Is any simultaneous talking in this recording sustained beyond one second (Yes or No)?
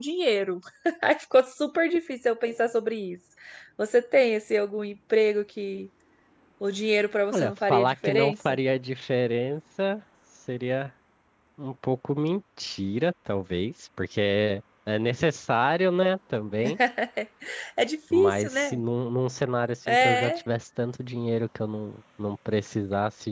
Yes